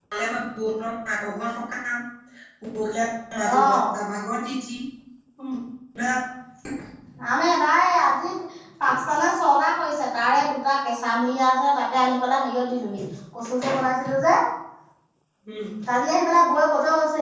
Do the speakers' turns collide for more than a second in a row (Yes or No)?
No